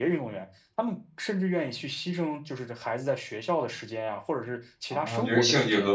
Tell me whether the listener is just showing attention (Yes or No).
No